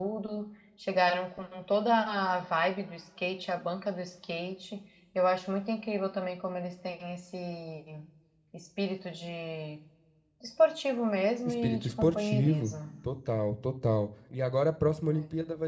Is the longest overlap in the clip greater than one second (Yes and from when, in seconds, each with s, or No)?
Yes, from 11.4 s